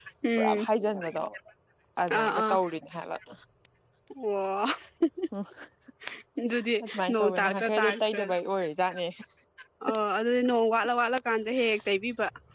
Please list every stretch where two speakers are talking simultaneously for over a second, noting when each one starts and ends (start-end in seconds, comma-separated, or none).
6.8-8.2